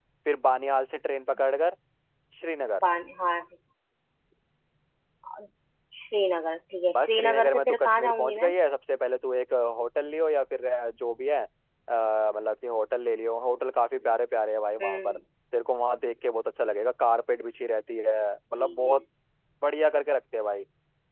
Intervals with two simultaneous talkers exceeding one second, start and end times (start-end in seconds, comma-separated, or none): 6.9-8.5